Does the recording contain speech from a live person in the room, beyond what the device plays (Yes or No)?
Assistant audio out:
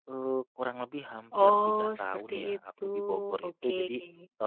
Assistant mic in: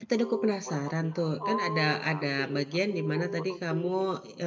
Yes